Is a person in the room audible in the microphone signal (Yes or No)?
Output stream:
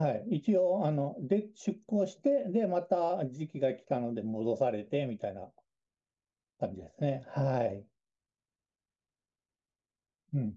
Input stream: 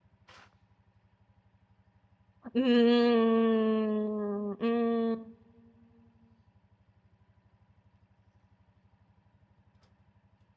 Yes